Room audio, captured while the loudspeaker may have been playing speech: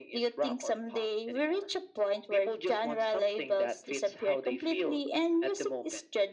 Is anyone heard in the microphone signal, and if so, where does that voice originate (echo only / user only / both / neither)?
echo only